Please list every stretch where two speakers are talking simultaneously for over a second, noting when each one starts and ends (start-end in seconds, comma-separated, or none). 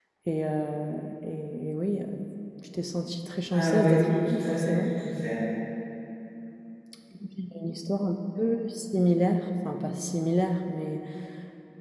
3.5-4.8